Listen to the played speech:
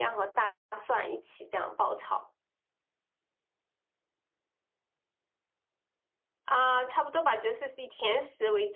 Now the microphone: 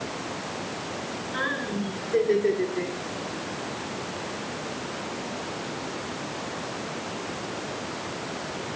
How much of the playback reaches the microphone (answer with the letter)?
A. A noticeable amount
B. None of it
B